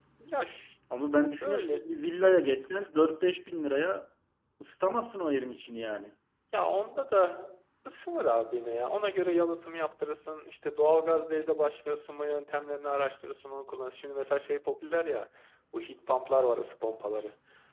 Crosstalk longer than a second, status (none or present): none